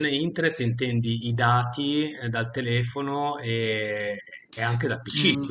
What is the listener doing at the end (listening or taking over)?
taking over